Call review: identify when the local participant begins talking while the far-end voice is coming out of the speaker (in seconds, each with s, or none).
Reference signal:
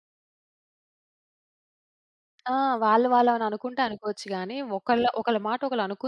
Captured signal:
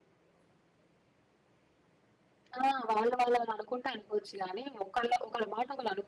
none